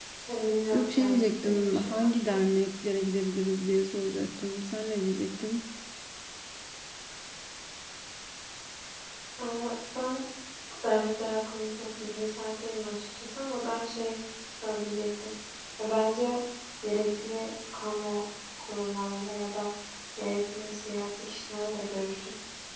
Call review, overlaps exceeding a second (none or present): present